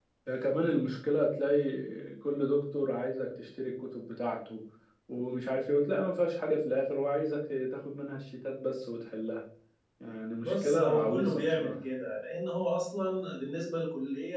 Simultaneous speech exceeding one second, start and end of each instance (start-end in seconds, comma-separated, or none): 10.4-11.7